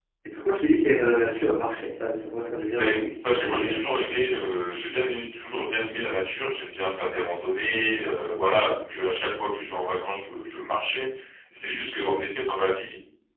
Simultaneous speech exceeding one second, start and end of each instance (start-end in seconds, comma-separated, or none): 2.7-3.9